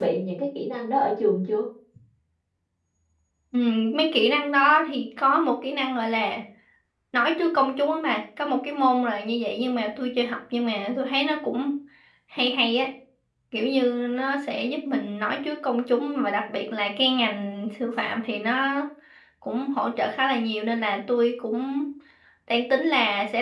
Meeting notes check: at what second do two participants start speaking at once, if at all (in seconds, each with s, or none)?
none